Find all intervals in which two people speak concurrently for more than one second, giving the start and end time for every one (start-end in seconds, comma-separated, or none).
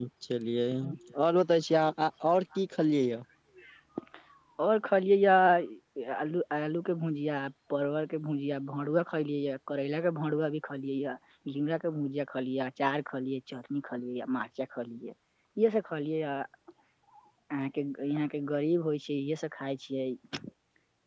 none